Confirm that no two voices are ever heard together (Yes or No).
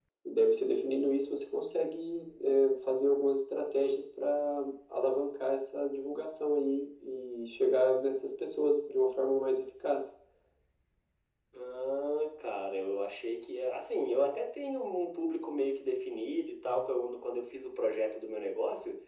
Yes